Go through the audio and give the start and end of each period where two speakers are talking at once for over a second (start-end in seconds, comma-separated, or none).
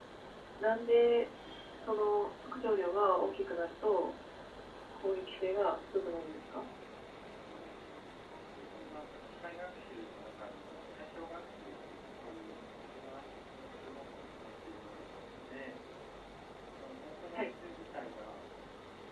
none